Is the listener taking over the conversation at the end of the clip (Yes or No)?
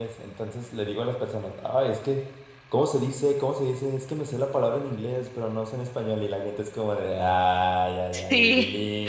No